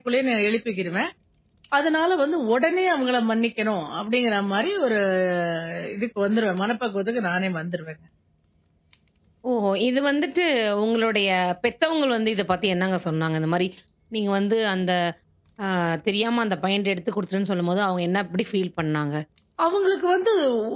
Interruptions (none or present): none